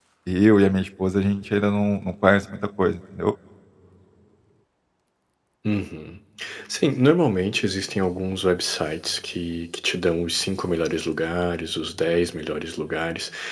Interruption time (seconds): none

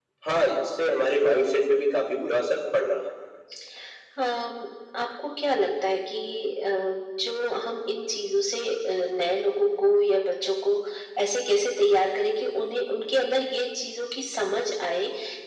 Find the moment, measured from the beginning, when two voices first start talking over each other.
none

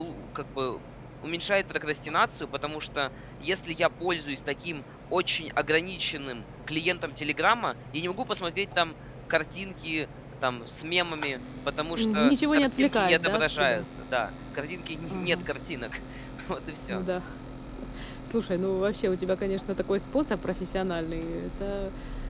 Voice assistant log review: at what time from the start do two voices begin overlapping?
12 s

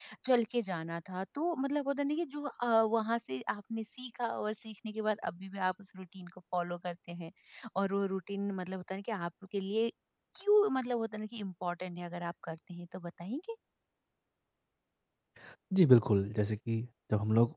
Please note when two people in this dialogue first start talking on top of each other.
none

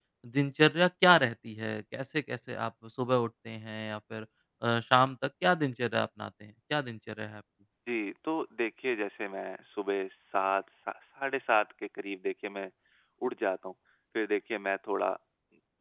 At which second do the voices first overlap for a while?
none

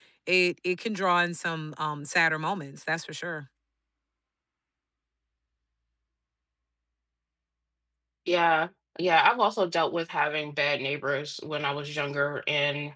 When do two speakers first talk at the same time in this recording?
none

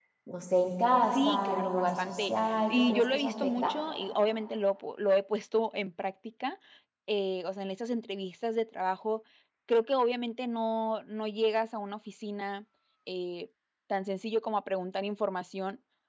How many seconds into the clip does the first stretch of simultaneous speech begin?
1 s

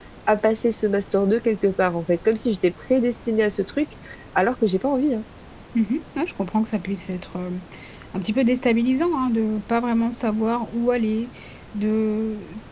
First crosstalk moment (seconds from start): none

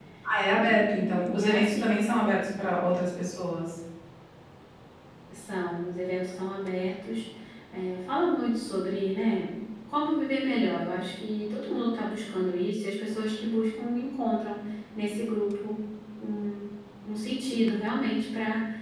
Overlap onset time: 1 s

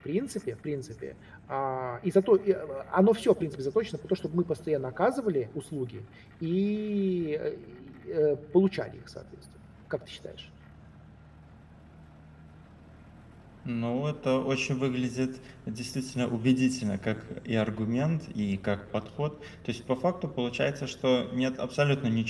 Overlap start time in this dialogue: none

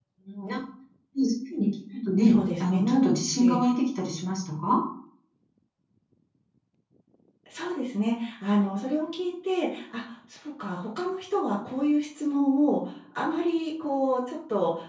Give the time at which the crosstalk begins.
2 s

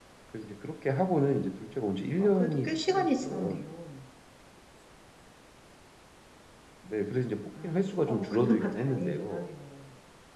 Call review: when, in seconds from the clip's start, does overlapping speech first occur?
2 s

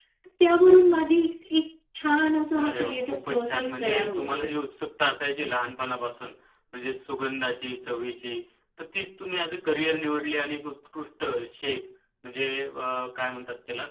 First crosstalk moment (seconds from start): 3 s

